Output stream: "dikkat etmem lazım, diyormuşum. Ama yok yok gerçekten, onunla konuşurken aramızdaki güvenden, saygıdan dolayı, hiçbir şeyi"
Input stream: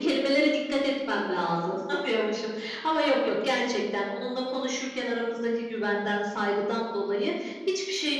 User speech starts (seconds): none

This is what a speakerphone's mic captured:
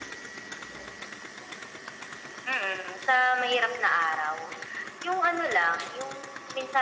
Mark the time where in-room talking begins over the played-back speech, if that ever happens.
none

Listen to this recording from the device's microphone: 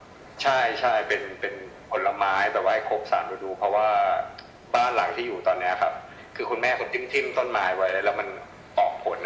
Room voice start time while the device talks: none

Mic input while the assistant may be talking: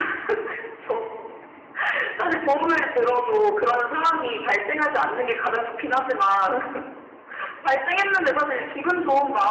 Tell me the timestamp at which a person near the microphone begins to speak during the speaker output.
none

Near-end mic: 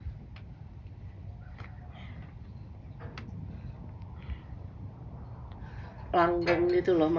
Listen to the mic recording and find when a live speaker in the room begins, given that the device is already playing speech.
6.2 s

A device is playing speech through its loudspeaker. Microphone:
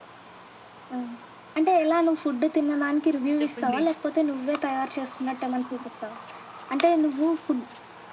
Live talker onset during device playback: 3.4 s

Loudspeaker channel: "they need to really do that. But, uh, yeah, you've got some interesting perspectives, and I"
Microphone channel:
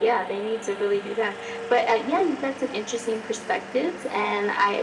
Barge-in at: none

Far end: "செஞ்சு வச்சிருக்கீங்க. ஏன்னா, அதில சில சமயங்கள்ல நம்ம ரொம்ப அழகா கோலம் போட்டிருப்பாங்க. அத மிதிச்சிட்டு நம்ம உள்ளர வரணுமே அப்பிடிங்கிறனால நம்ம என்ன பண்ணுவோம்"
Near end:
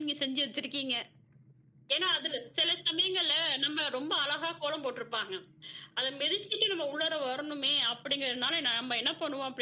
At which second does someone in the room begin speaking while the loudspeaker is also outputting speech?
none

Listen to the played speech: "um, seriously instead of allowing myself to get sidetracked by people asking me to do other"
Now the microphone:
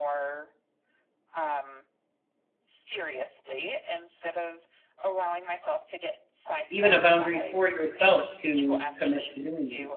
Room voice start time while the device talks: 6.7 s

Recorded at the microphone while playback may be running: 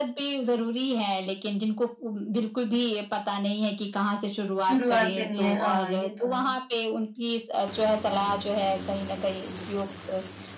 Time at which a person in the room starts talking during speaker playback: 4.6 s

